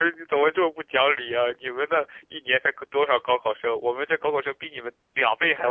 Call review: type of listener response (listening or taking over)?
taking over